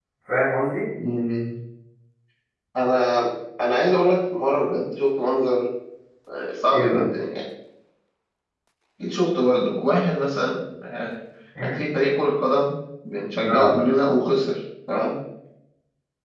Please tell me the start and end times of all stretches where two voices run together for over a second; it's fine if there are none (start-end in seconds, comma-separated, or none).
none